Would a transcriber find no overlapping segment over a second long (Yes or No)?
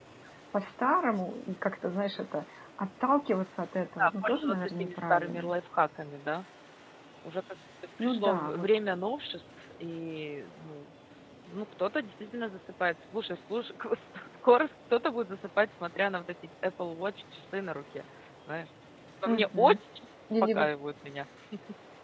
No